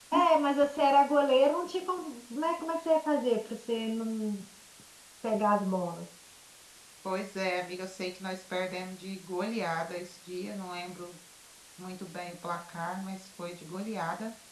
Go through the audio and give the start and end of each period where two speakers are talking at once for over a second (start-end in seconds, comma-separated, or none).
none